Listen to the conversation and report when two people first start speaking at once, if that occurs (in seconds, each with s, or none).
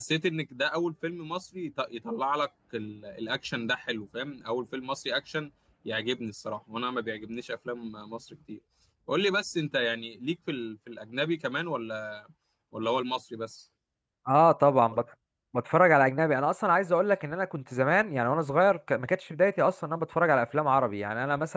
none